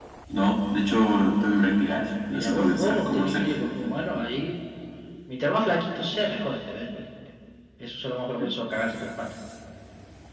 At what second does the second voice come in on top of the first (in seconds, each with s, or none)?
1.1 s